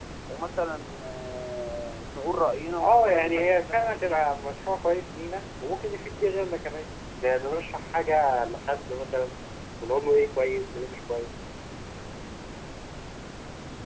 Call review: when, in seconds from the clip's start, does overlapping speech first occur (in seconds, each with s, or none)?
2.8 s